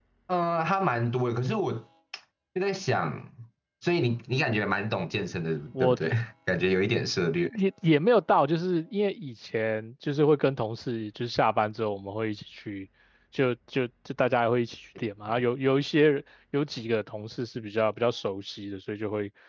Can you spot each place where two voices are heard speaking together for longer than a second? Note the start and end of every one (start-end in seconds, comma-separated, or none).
none